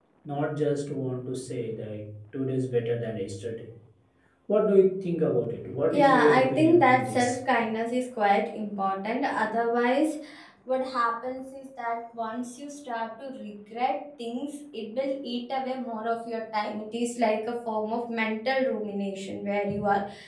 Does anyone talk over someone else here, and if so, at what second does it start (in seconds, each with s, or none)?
5.9 s